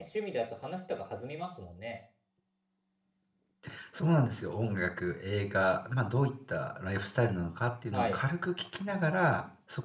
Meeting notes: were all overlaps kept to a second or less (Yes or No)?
Yes